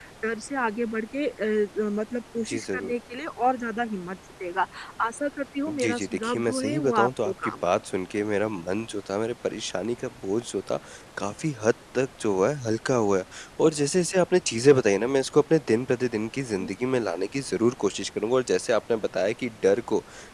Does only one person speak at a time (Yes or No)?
No